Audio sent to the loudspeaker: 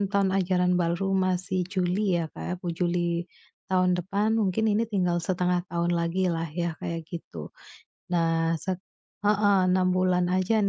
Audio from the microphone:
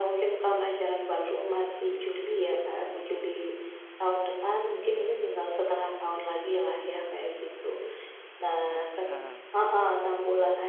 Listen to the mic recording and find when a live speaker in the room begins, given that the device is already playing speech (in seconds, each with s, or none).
8.7 s